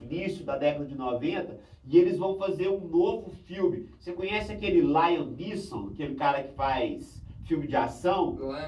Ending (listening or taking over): taking over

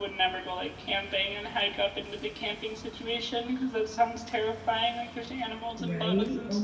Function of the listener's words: taking over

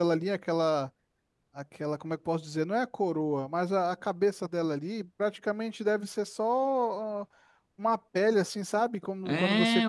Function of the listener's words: taking over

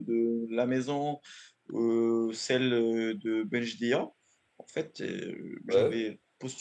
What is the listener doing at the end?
listening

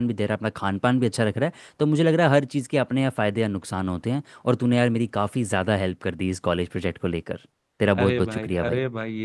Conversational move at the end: taking over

